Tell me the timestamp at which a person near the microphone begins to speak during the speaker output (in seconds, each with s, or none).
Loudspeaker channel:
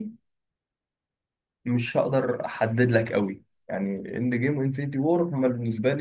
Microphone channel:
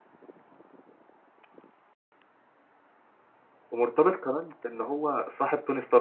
3.7 s